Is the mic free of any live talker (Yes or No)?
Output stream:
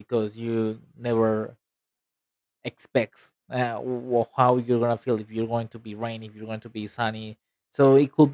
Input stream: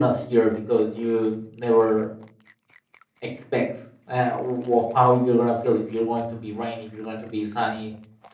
Yes